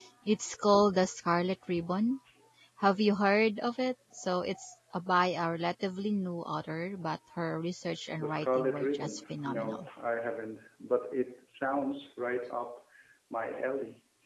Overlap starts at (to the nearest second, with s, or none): 8 s